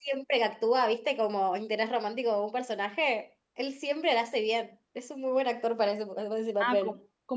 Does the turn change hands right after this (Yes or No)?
Yes